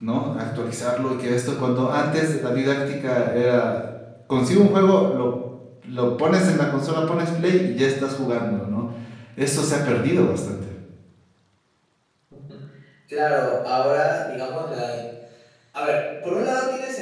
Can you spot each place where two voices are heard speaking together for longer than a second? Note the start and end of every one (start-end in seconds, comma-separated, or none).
none